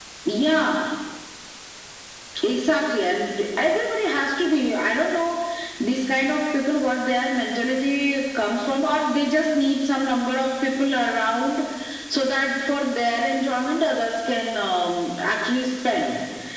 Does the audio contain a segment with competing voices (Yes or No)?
No